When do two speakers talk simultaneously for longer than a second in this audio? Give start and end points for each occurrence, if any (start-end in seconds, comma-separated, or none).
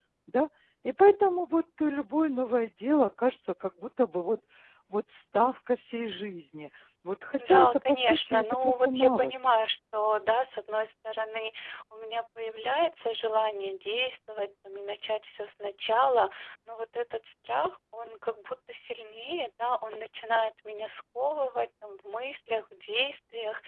7.4-9.3